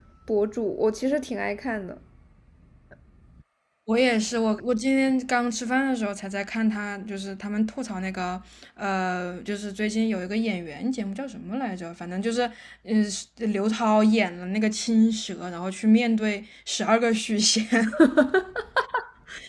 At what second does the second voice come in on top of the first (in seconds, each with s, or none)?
none